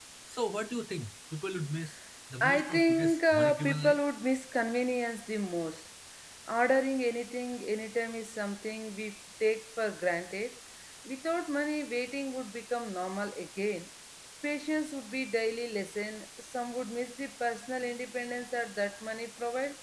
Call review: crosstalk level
present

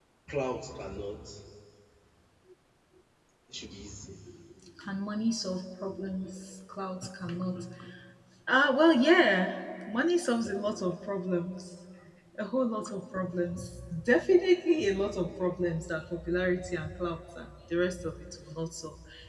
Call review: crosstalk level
none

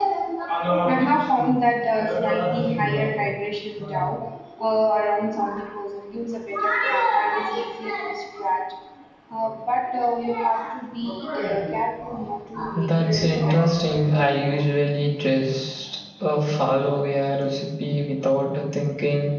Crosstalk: present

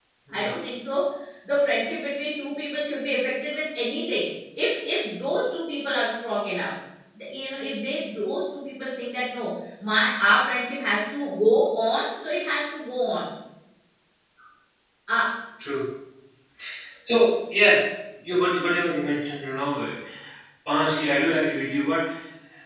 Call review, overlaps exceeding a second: none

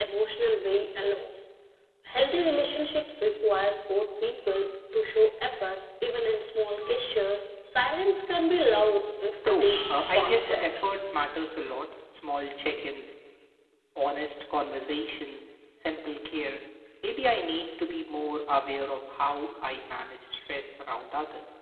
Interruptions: present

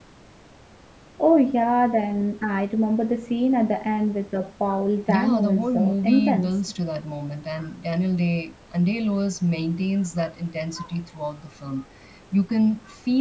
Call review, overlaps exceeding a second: present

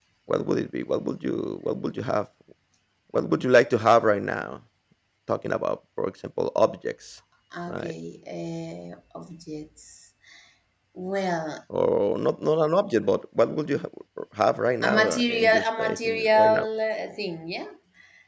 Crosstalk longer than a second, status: present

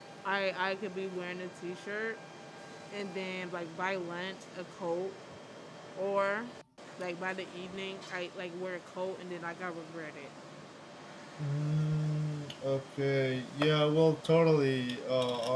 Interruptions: none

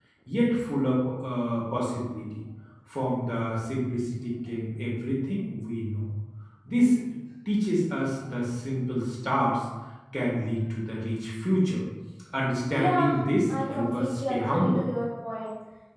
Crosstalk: present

